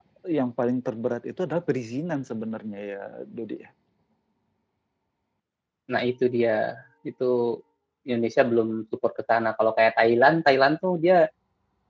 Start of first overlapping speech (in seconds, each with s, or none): none